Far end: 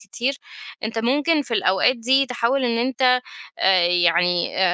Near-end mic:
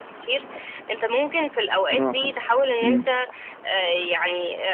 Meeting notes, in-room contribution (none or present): present